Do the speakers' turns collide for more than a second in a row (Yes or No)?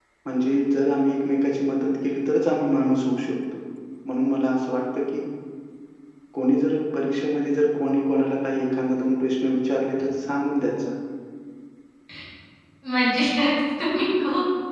No